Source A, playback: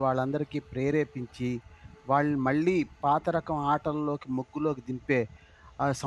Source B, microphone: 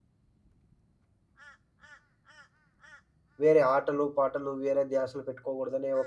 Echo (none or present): none